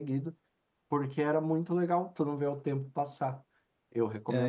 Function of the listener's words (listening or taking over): taking over